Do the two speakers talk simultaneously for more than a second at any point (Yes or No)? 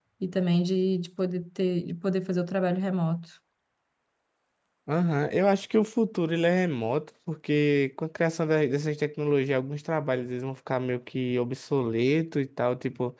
No